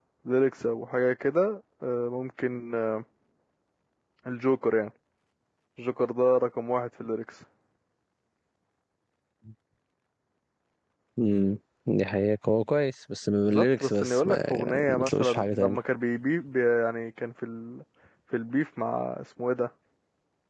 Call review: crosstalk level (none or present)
present